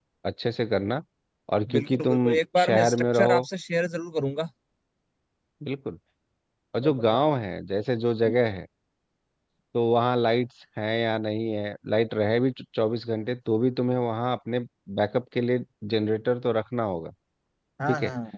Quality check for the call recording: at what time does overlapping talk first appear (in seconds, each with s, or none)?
1.7 s